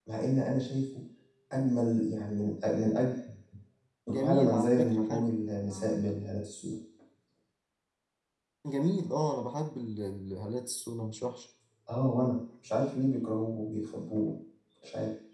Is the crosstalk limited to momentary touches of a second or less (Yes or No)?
No